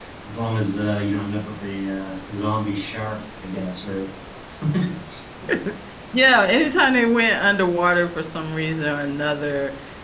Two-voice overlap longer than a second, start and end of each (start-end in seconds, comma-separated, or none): none